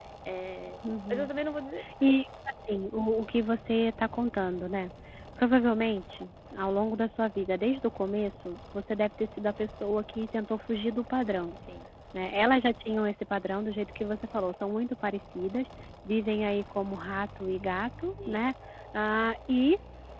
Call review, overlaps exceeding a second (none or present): none